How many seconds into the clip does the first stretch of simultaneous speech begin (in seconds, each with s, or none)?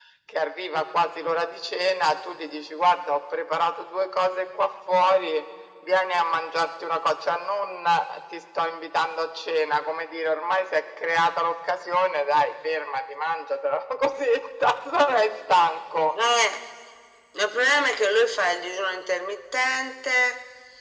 none